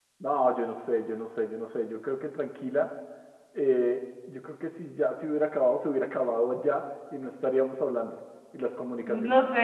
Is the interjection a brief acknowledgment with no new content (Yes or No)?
No